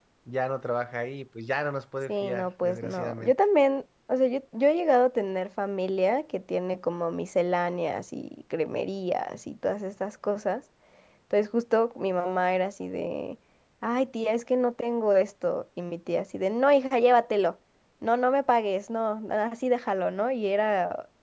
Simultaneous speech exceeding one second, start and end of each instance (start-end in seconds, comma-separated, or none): 2.1-3.3